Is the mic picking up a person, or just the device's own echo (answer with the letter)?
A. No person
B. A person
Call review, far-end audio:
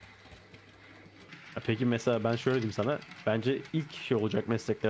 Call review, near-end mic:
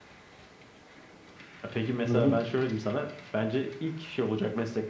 B